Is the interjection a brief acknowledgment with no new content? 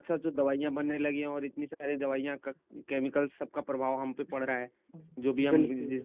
Yes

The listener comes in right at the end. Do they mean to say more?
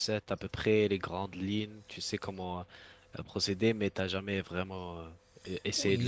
Yes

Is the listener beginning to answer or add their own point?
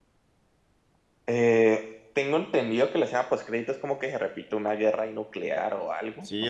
Yes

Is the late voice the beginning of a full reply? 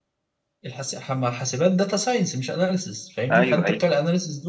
No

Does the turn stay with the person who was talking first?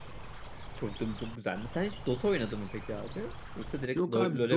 No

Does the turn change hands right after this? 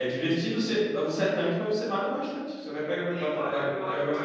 Yes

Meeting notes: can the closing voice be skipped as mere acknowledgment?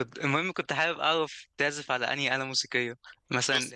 Yes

